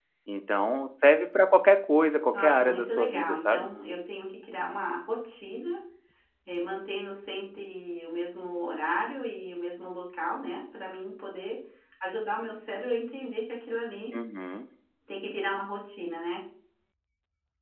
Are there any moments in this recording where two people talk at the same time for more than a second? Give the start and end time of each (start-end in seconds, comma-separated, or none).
2.3-3.7